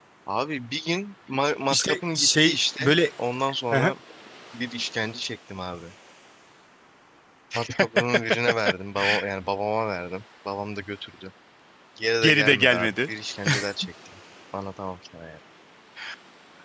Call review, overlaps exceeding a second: present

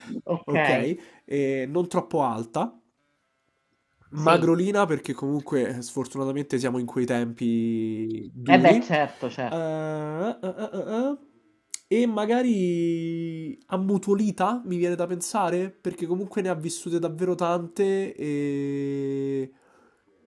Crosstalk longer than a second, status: none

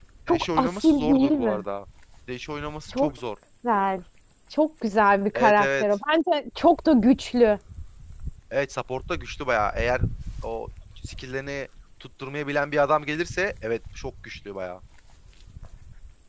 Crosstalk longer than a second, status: present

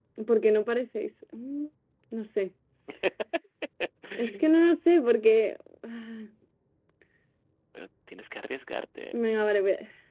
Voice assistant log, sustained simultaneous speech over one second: none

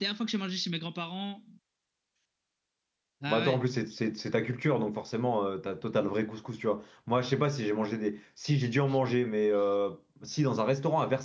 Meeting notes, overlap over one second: none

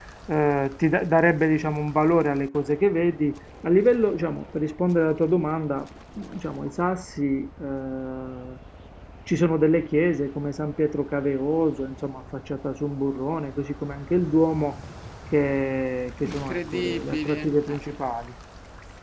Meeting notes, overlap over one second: present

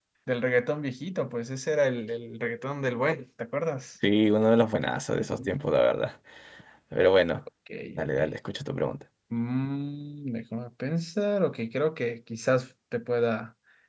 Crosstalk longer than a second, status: none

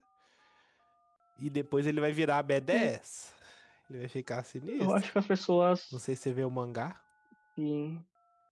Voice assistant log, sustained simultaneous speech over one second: none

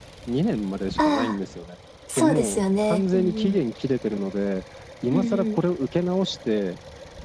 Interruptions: present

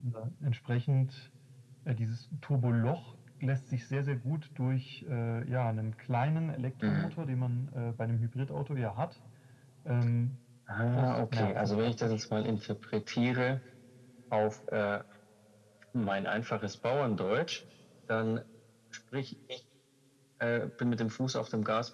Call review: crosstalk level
present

